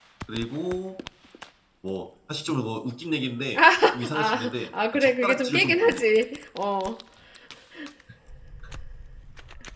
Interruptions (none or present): present